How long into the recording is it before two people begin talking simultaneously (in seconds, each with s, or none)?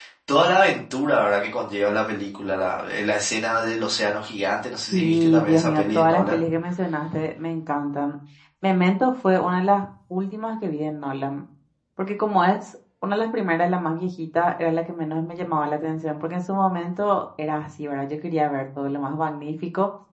4.9 s